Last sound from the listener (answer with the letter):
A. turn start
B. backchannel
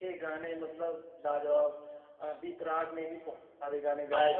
A